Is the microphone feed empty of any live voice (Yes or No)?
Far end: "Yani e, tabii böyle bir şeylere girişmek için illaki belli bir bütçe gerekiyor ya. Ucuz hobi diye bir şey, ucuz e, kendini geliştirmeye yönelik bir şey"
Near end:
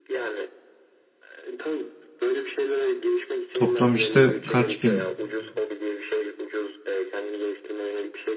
No